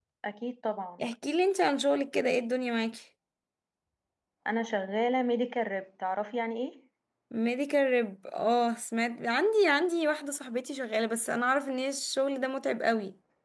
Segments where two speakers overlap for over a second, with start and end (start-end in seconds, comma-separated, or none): none